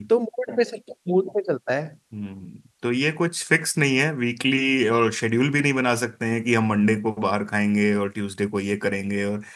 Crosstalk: none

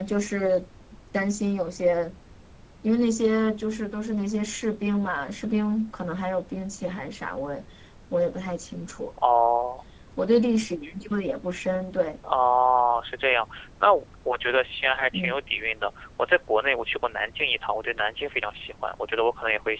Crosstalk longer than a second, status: none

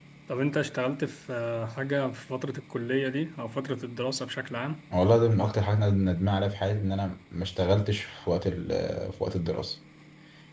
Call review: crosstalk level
none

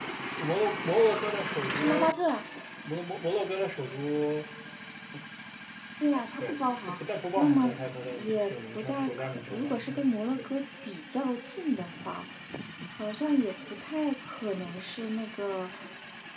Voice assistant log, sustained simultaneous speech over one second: present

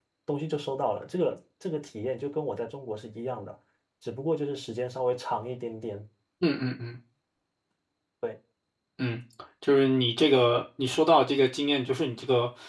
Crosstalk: none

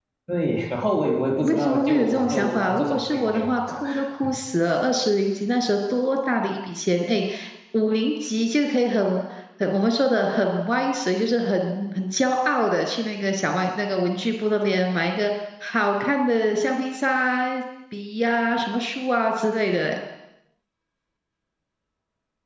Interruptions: present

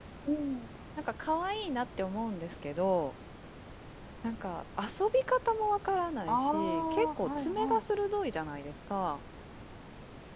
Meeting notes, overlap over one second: present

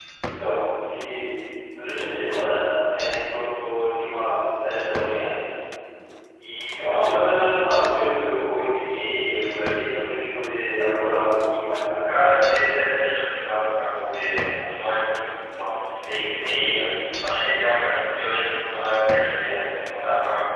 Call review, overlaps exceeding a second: none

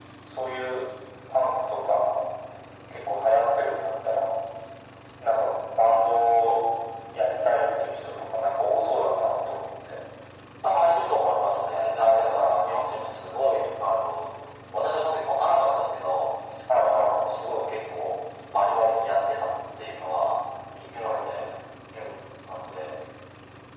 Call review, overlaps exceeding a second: none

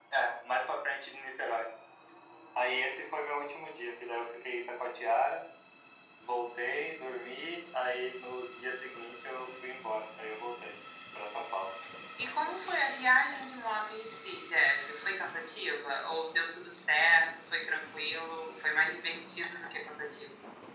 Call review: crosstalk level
none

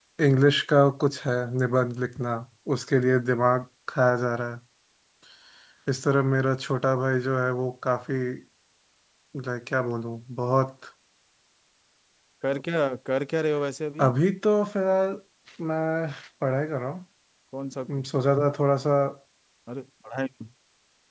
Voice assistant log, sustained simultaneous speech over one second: none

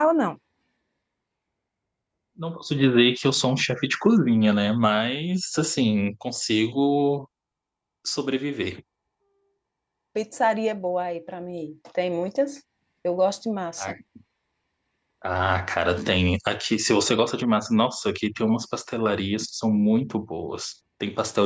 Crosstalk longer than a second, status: none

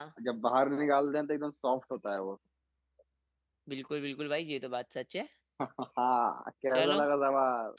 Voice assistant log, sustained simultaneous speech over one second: none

